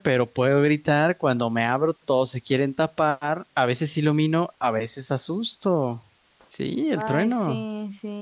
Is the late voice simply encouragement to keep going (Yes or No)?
No